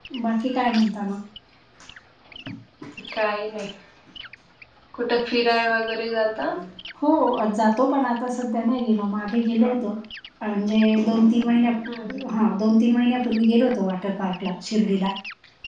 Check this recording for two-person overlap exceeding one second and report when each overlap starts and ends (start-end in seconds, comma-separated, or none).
none